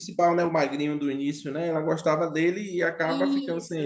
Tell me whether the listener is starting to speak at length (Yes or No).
Yes